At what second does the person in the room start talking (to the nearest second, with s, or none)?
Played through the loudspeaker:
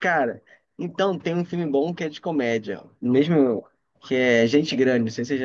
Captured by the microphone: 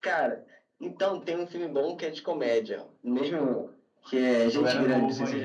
4 s